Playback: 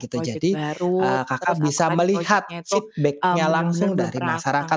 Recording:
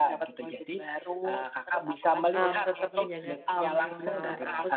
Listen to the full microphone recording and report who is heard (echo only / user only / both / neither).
both